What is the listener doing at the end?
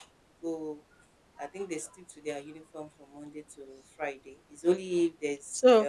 taking over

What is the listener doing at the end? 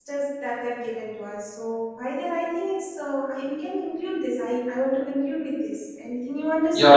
taking over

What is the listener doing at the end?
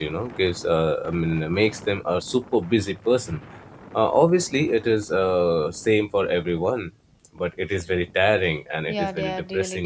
taking over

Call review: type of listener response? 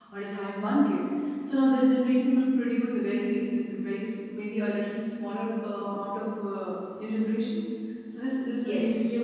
listening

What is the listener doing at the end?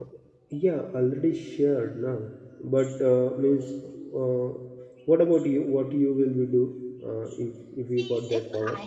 taking over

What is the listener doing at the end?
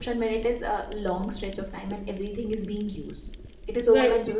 listening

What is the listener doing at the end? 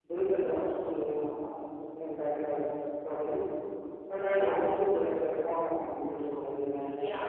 taking over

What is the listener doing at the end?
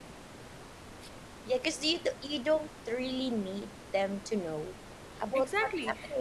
taking over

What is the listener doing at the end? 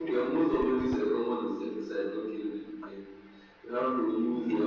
listening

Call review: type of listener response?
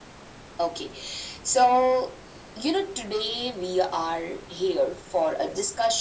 listening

